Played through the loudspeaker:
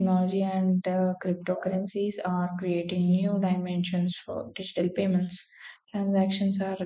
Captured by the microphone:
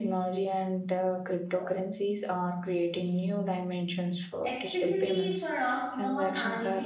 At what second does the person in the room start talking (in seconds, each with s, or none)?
4.4 s